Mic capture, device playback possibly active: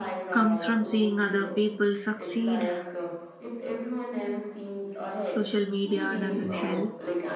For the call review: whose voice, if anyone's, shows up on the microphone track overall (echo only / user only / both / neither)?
both